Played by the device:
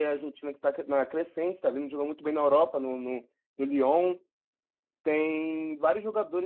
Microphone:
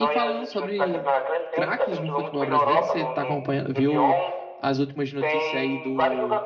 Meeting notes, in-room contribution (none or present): present